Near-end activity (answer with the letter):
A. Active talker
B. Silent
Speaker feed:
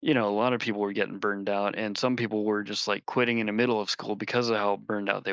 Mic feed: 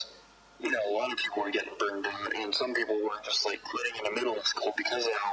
B